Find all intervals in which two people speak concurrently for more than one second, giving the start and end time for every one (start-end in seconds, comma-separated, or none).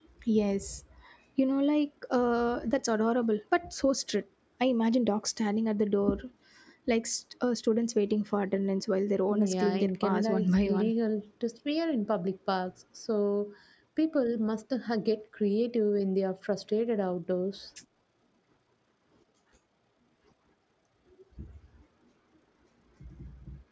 9.3-10.9